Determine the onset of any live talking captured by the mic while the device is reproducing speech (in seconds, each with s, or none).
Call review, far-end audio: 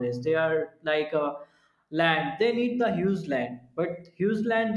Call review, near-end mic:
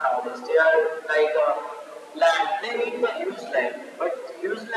none